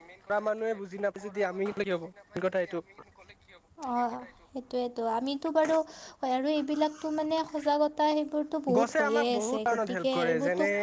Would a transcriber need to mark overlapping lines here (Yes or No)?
Yes